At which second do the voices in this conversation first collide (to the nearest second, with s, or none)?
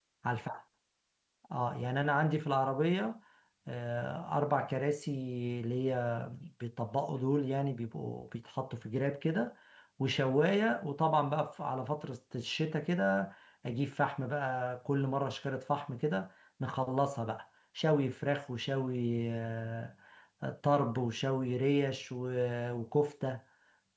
none